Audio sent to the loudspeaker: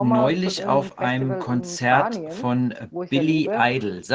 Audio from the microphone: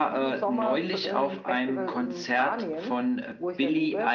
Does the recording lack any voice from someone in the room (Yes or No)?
Yes